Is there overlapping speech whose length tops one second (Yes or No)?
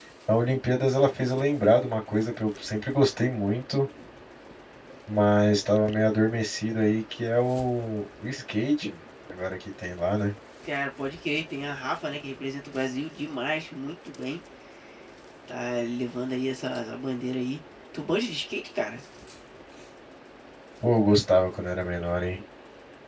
No